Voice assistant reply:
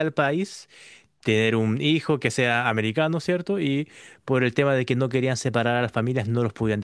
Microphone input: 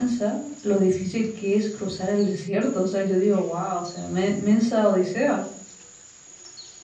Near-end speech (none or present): present